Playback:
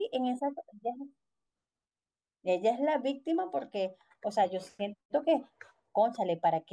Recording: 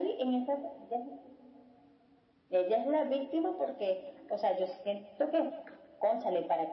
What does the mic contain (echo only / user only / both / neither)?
echo only